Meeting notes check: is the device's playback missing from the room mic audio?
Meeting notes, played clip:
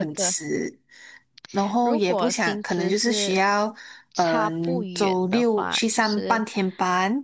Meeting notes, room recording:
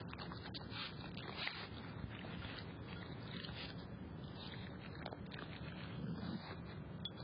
Yes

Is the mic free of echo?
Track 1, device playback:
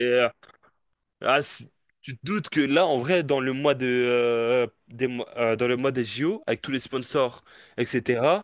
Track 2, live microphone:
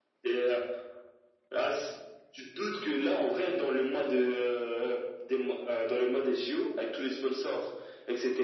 No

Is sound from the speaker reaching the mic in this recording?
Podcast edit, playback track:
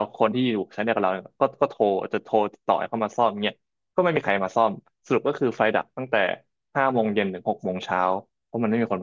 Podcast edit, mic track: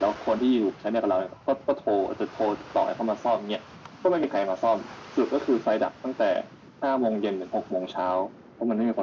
Yes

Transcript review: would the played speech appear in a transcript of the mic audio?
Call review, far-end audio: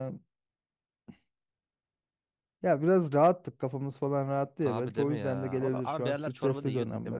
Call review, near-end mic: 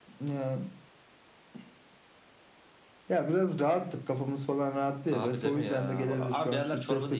Yes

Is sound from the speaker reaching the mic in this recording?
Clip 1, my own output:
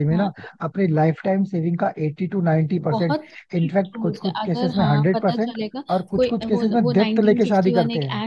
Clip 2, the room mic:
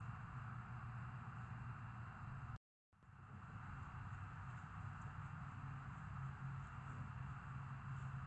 No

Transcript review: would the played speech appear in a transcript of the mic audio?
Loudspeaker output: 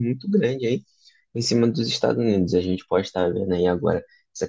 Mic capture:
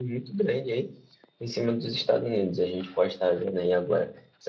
Yes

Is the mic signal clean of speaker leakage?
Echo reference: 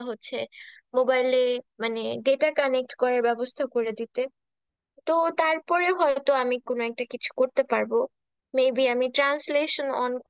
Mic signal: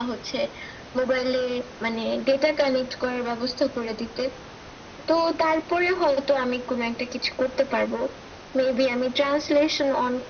No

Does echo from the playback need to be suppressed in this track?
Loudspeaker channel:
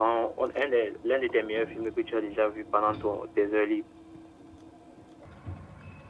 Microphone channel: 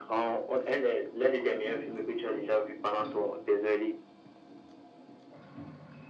Yes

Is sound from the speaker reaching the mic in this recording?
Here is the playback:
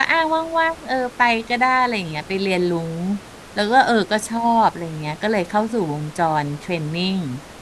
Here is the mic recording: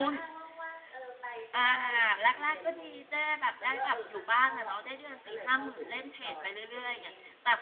Yes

